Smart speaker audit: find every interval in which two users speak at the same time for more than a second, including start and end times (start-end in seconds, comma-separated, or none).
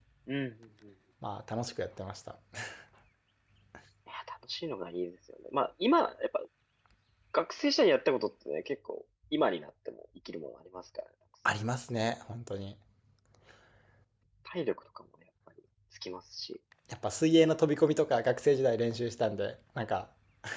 none